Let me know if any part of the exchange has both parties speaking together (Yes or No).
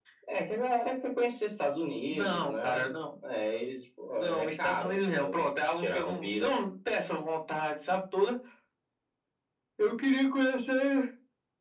Yes